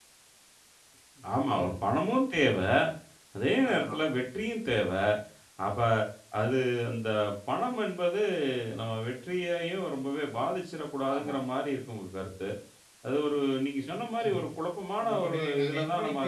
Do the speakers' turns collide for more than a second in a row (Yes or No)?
Yes